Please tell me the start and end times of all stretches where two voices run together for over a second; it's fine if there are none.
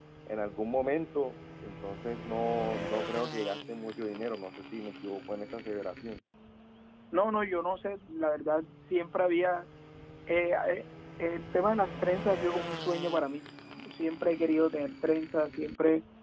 none

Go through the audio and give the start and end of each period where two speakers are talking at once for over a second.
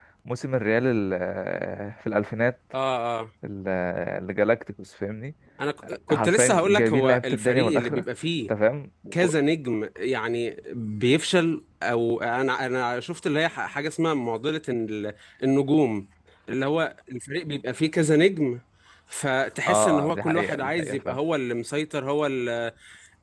6.1-8.0, 19.7-21.2

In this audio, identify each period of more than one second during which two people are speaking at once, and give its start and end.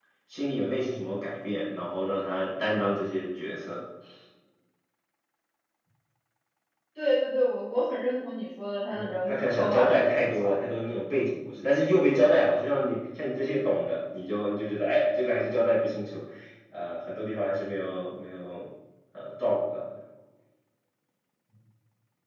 8.9-10.6

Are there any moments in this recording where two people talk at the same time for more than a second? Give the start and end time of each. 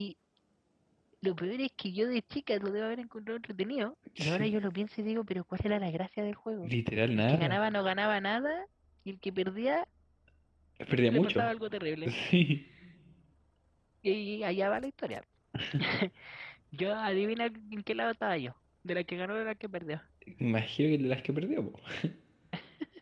none

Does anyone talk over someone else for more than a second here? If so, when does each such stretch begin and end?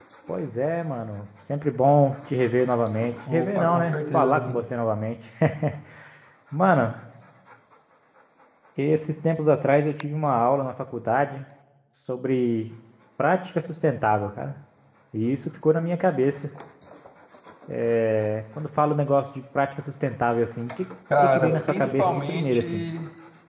3.3-4.6, 21.2-22.9

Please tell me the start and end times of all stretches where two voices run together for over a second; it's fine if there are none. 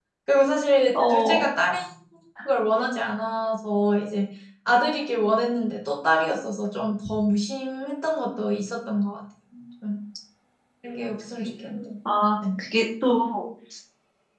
none

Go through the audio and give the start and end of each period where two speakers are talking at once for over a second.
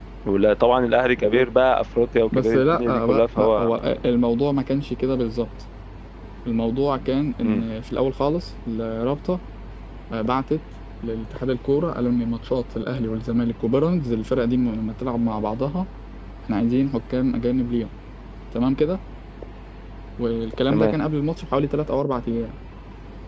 2.3-3.8

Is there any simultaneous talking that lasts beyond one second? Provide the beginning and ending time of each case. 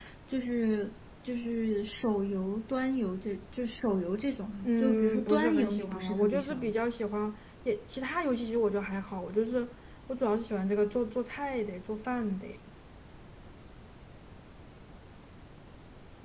4.6-6.8

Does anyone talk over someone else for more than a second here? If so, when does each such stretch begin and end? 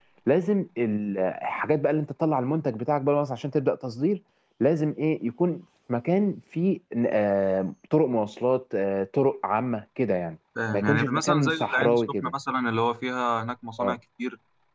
10.7-12.3

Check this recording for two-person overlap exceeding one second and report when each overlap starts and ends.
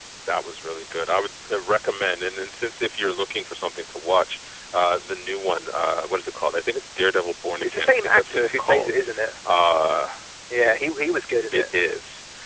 7.6-8.9

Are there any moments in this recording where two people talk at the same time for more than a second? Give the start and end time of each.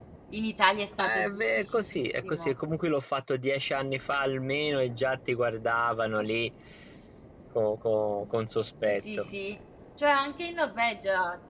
1.0-2.5

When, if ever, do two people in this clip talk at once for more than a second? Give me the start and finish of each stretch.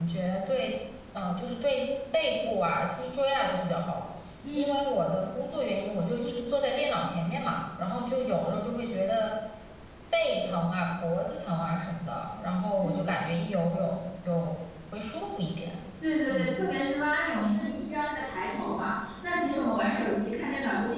none

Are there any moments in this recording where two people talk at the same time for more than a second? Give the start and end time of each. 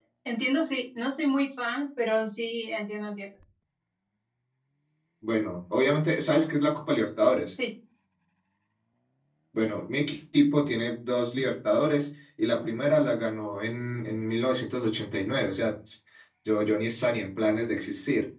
none

